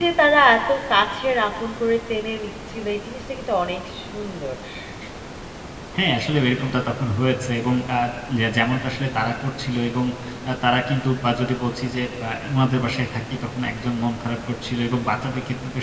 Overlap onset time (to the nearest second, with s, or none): none